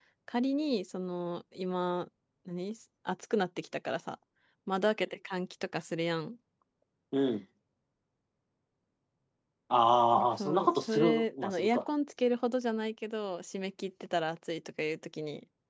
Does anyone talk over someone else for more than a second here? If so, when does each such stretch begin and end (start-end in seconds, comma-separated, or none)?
10.4-11.8